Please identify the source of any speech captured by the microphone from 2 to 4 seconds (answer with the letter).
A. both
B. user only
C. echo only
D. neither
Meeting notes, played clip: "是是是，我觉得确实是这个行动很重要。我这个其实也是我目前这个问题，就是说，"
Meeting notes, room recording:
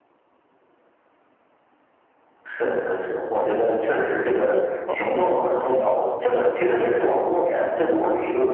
C